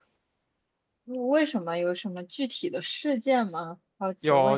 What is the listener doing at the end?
taking over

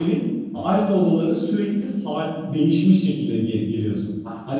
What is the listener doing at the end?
listening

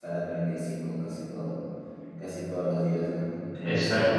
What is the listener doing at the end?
taking over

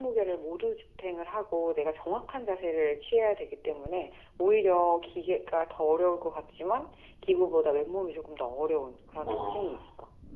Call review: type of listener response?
taking over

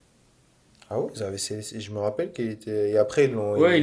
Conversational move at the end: taking over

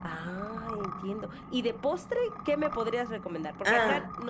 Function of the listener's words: listening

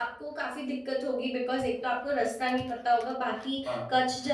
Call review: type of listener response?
listening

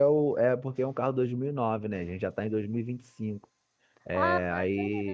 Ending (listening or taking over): taking over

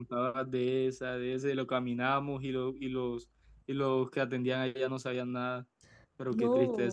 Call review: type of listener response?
taking over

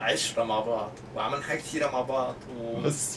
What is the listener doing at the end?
taking over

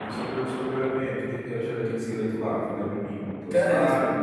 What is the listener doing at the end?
listening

